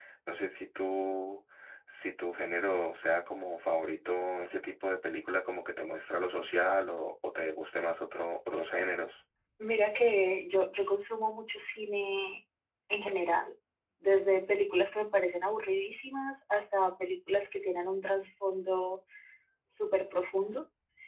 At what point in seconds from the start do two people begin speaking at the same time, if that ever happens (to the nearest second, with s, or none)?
none